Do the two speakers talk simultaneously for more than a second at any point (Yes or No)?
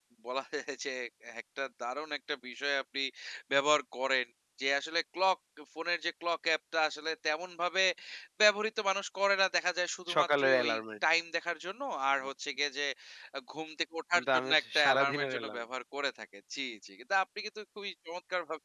Yes